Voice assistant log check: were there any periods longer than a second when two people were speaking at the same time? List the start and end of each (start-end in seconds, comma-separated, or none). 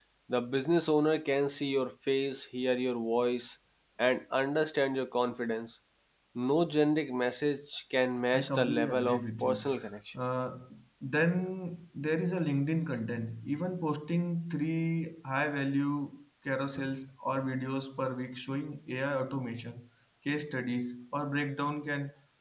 8.3-9.6